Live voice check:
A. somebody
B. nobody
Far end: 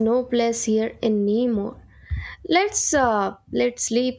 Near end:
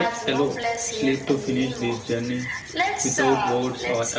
A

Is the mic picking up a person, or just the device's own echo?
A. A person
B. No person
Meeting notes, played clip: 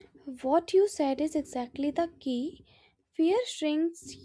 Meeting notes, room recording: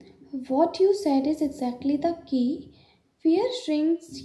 B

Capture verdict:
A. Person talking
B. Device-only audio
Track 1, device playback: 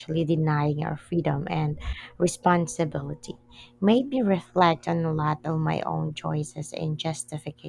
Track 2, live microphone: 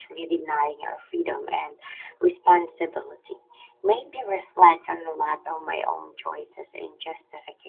B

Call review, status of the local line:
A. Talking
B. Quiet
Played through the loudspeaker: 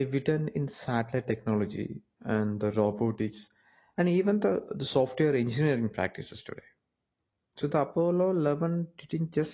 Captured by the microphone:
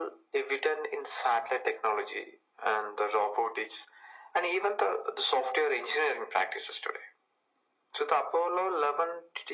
B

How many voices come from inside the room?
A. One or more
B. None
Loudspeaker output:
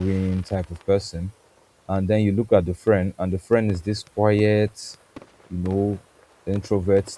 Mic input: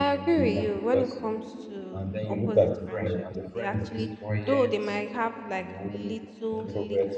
A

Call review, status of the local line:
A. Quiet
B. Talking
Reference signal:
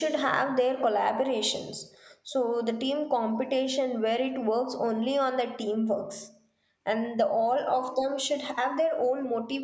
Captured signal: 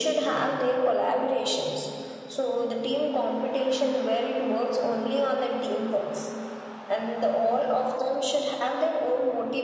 A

